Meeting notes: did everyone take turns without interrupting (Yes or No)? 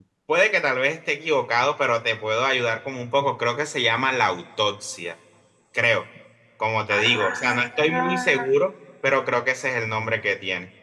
No